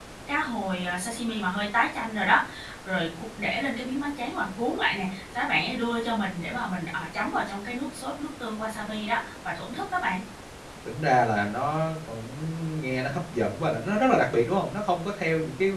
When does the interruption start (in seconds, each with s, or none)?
none